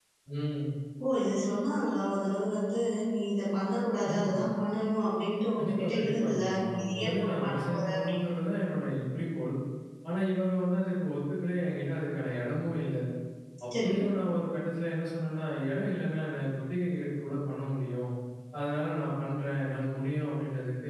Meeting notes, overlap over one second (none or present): present